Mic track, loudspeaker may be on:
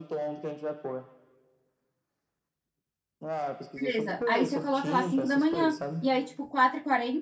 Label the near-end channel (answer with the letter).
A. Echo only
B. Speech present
B